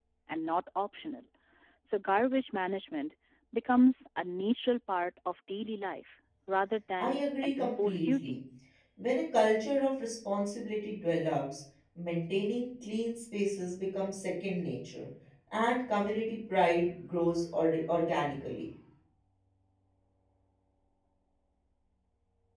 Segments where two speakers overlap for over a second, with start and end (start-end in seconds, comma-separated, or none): 7.0-8.4